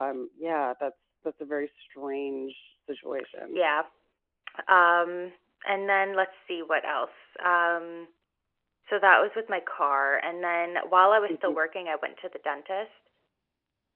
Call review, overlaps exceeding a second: none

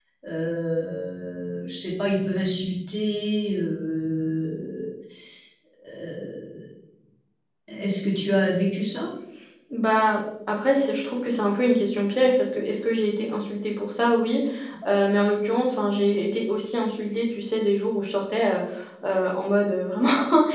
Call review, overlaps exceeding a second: none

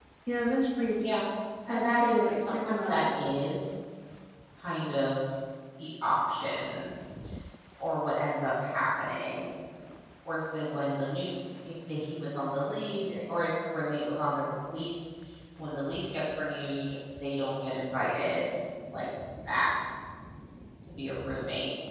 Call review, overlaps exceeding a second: present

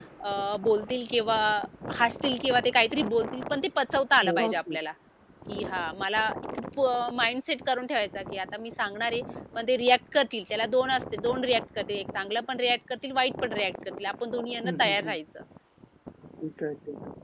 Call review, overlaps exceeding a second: none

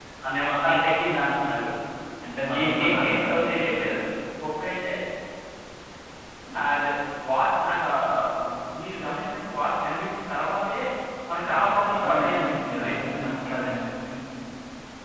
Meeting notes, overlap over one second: present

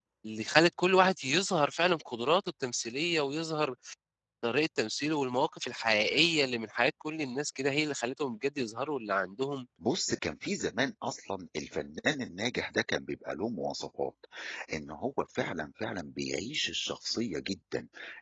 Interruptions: none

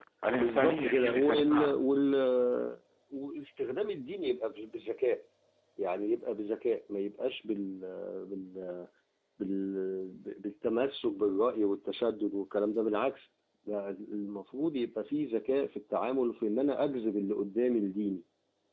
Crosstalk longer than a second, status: present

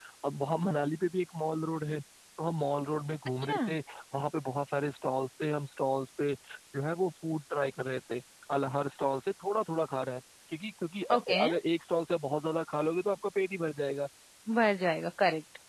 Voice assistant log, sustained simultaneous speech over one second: none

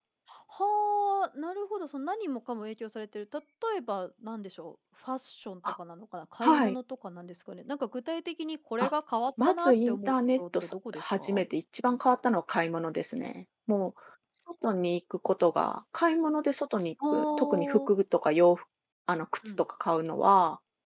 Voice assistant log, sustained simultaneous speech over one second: present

